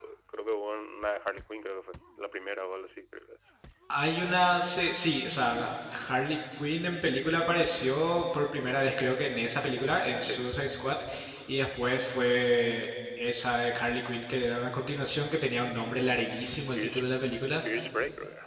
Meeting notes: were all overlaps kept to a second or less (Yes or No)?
Yes